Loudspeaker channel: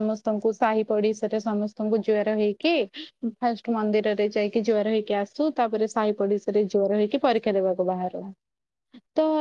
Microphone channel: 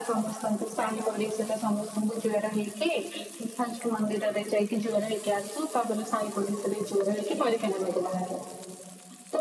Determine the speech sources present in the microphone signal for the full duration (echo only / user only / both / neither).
echo only